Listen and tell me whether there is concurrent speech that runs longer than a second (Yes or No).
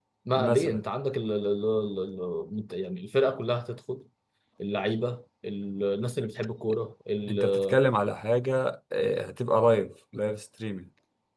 No